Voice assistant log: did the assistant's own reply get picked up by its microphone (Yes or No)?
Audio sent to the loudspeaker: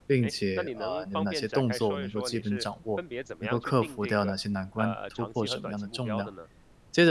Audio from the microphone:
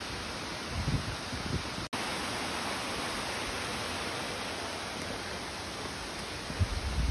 No